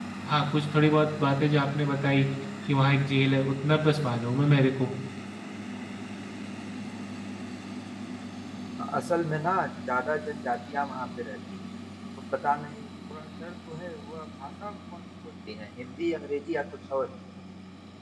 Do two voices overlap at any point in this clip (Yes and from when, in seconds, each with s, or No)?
No